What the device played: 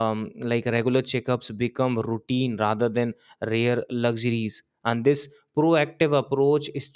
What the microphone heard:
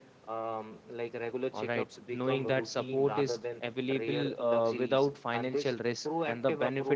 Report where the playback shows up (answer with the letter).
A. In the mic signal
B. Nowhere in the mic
A